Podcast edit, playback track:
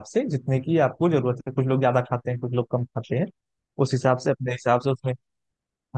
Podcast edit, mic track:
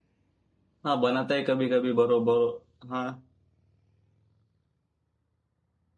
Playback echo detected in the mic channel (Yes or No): No